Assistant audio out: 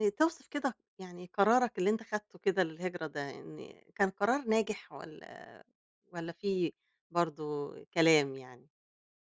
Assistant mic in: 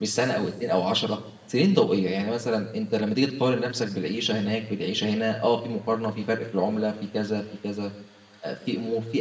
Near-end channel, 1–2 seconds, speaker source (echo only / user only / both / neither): user only